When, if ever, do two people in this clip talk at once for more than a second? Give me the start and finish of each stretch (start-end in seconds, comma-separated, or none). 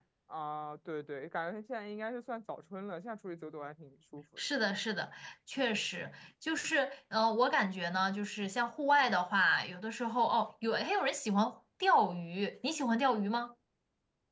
none